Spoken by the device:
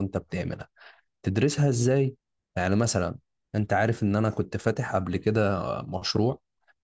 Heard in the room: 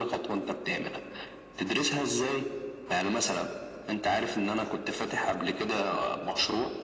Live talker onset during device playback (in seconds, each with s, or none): none